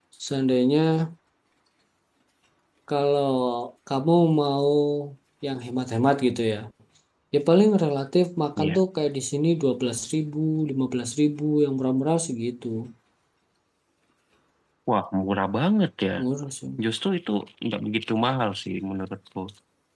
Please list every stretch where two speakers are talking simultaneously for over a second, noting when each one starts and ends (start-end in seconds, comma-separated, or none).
none